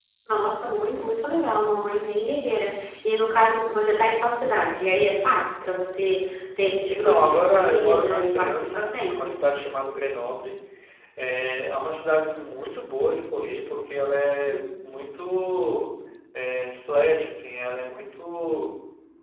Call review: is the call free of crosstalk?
No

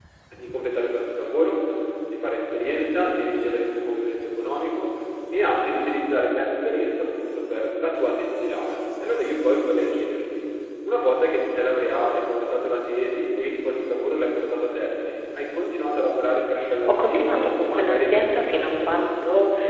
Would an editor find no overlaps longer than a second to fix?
No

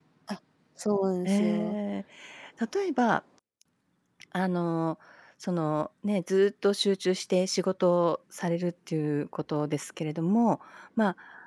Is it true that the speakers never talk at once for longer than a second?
Yes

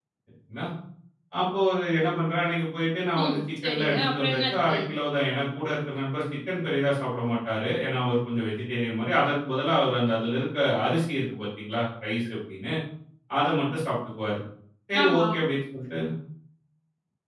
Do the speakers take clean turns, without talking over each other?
No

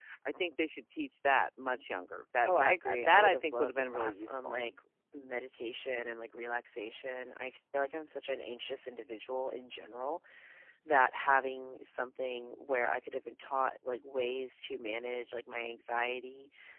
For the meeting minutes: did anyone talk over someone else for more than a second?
Yes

